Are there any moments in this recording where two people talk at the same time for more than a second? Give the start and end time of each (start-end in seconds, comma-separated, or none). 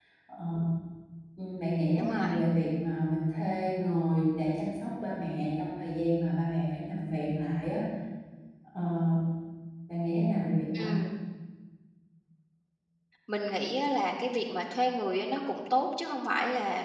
none